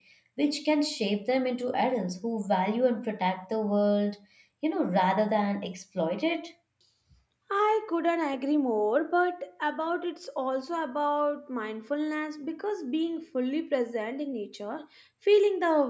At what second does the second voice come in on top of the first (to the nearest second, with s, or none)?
none